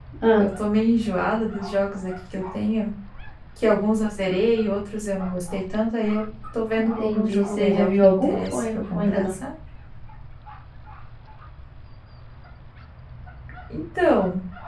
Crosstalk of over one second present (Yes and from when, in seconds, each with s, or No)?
Yes, from 6.8 s